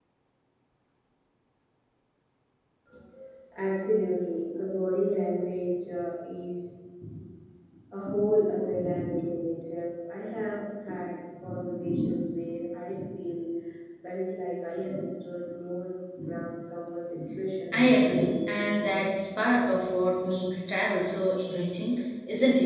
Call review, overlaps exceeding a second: present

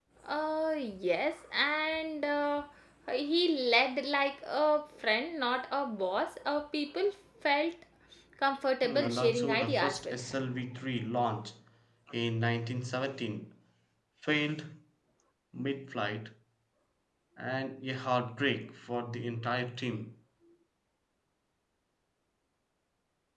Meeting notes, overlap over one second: present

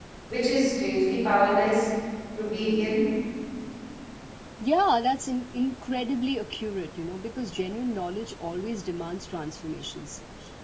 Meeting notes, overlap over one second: none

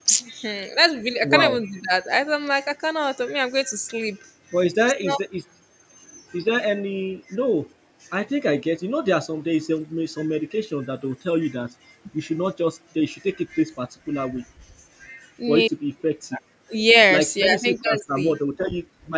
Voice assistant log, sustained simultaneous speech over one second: present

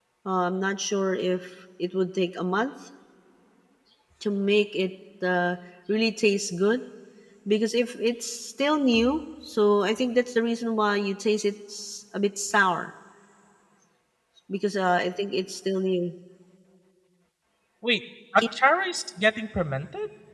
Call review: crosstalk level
none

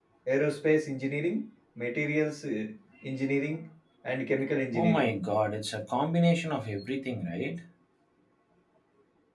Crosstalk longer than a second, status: none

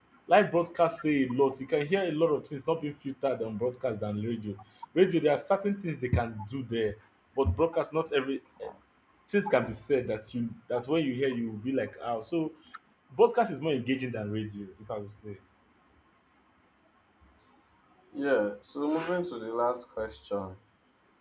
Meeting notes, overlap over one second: none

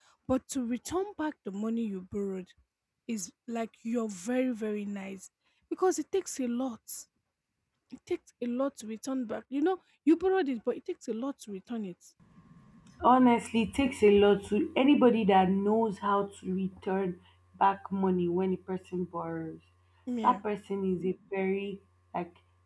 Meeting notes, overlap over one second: none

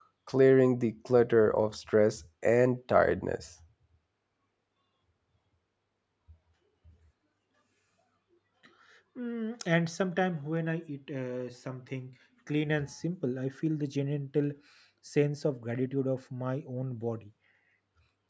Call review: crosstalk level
none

